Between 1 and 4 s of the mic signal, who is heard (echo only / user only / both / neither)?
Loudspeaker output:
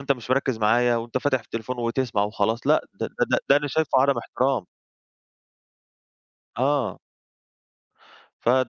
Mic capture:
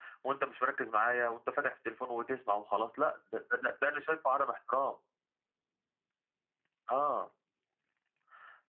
echo only